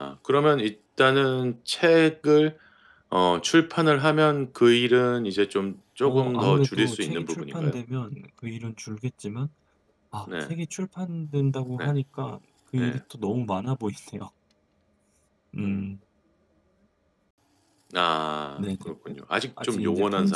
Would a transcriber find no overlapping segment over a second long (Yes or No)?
No